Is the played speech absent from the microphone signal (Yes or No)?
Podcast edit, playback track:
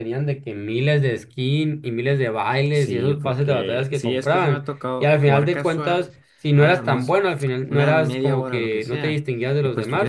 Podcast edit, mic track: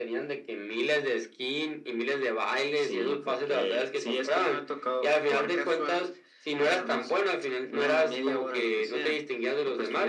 No